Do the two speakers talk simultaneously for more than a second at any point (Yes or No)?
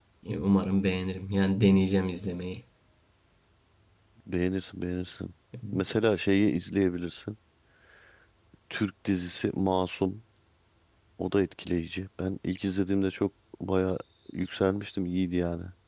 No